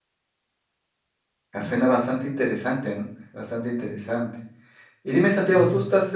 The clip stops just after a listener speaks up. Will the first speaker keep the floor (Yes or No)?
Yes